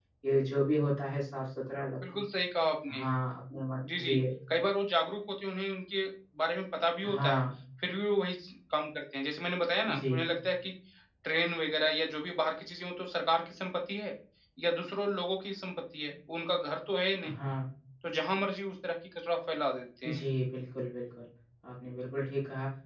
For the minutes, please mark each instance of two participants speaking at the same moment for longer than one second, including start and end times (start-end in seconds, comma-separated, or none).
none